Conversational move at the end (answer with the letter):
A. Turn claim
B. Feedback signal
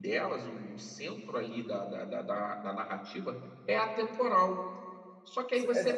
A